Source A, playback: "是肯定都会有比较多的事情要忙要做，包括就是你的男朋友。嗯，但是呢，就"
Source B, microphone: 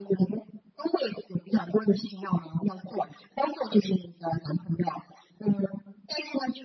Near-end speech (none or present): none